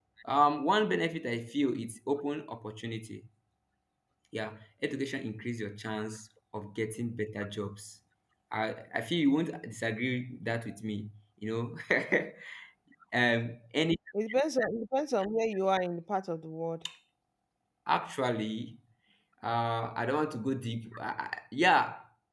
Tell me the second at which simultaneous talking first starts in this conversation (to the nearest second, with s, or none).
none